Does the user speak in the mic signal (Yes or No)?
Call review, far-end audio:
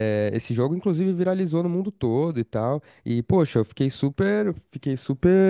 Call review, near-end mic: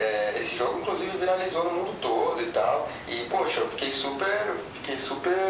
No